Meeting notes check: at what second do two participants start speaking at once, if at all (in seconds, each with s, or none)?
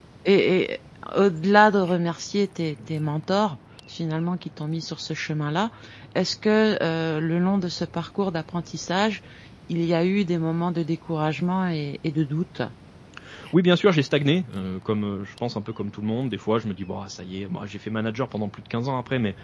none